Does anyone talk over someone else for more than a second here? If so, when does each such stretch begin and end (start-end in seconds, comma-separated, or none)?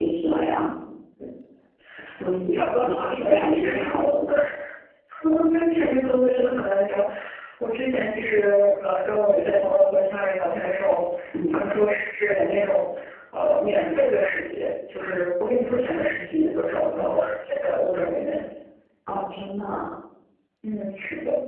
2.5-4.4